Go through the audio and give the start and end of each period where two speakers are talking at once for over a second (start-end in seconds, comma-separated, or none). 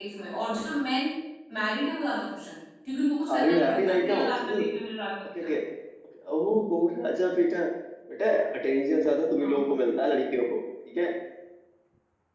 3.4-4.6